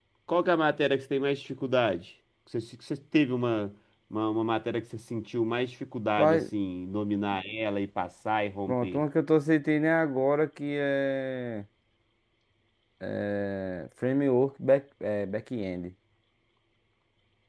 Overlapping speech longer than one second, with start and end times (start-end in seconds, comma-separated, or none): none